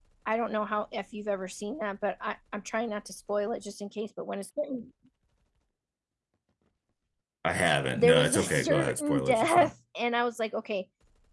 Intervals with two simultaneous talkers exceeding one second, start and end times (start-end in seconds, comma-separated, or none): 7.9-9.7